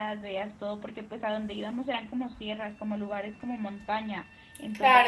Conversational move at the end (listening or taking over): taking over